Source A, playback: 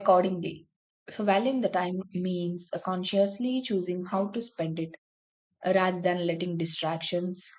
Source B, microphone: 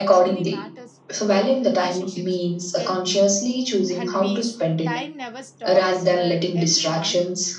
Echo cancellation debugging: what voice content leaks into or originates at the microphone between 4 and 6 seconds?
both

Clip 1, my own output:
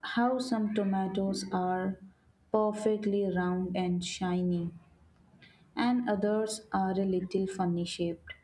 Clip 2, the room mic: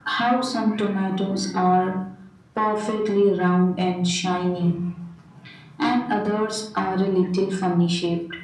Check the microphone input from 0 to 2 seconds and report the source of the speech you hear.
echo only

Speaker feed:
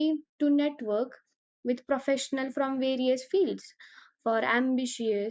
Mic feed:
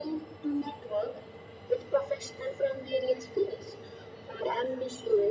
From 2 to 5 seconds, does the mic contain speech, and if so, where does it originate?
echo only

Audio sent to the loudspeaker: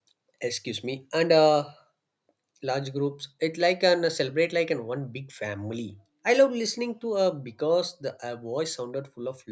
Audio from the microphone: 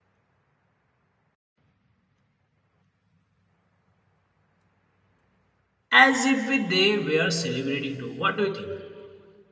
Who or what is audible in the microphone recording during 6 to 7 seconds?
user only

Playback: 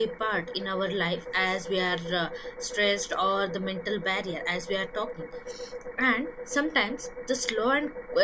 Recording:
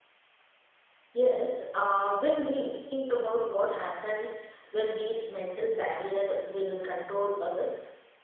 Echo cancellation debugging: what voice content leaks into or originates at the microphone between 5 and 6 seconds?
user only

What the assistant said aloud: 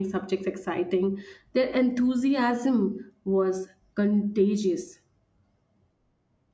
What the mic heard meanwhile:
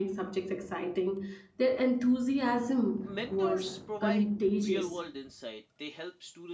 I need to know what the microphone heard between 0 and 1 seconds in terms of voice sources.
echo only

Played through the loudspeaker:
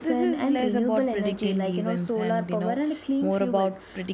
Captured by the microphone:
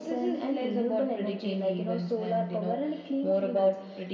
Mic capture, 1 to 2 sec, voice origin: echo only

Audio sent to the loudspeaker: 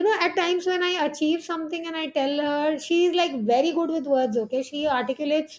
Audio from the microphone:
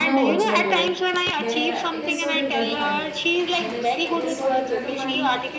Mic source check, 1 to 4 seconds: both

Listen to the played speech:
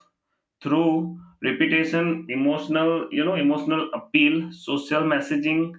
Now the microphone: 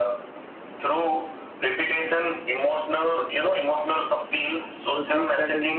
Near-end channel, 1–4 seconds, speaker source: echo only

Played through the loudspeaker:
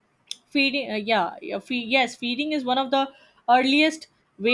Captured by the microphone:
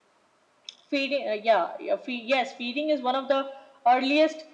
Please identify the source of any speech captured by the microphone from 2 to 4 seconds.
echo only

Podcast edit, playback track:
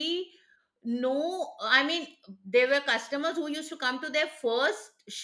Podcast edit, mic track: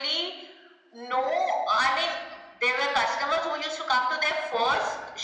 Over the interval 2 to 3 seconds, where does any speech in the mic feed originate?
echo only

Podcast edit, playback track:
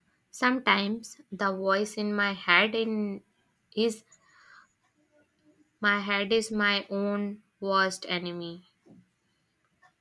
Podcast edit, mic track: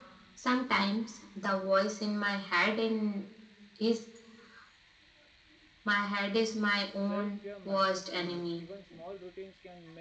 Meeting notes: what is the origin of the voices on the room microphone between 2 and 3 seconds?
echo only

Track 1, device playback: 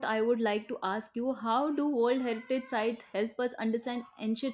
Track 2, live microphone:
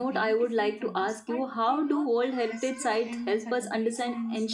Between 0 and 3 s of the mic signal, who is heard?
both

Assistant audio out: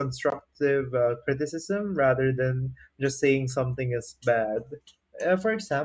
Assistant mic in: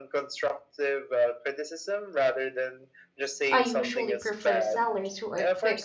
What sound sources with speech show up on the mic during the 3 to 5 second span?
both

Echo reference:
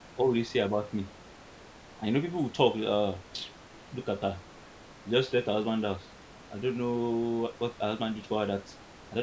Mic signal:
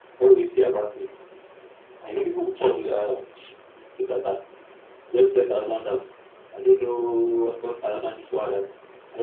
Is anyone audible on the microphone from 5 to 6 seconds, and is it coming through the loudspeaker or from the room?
echo only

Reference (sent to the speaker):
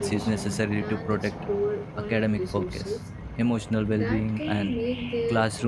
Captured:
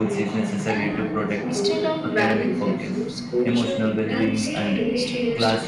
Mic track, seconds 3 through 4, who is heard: both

